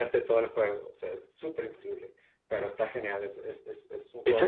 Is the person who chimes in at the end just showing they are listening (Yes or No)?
No